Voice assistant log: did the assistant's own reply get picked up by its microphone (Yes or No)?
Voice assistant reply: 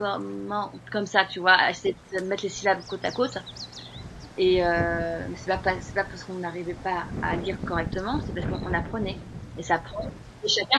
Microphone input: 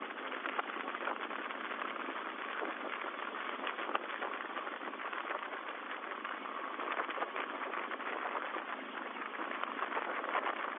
No